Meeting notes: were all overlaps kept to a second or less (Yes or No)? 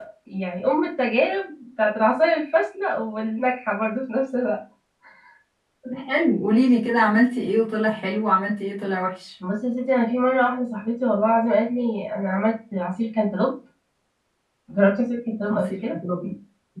Yes